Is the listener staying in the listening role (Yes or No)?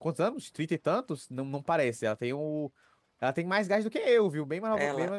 No